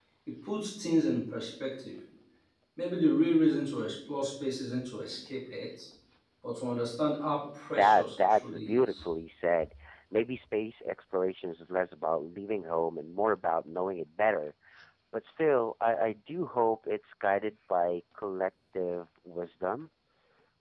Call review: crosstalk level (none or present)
present